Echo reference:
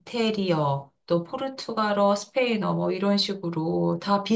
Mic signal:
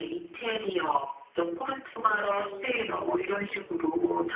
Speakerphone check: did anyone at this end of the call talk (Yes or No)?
Yes